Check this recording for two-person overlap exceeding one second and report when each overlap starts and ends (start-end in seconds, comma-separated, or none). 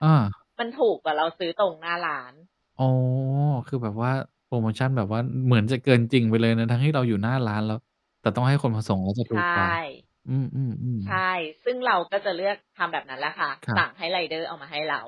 none